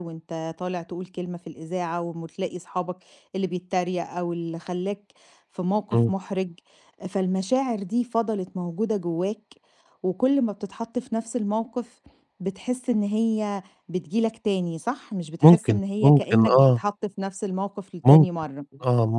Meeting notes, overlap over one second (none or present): present